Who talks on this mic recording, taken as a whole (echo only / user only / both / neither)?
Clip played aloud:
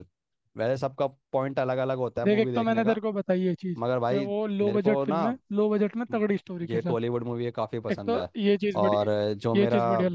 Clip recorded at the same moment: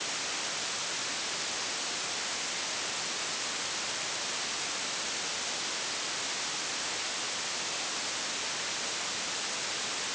neither